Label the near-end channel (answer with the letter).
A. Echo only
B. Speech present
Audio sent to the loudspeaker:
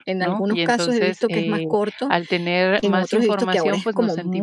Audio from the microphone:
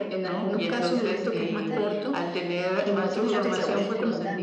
B